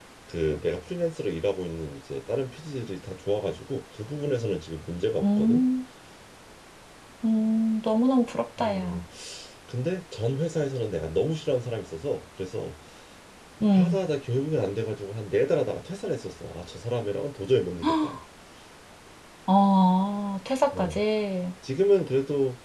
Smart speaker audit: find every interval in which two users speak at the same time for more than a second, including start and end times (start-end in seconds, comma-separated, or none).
none